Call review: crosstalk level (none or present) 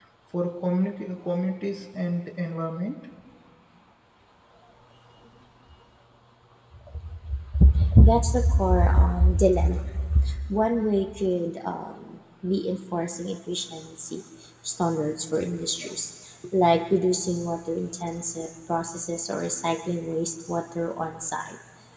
none